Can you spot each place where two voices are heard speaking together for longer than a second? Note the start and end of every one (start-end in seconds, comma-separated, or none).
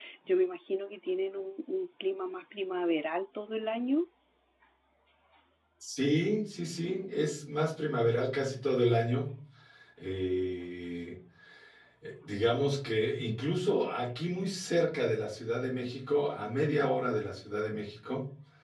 none